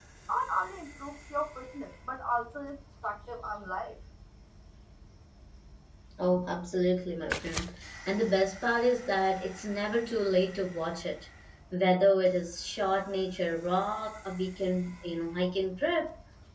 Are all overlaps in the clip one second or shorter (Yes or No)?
Yes